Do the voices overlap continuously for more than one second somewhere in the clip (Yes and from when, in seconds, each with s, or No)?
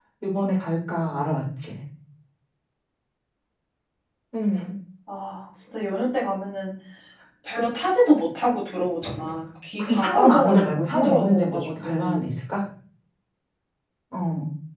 Yes, from 9.8 s